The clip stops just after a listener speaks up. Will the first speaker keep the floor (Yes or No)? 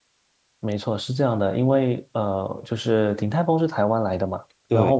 Yes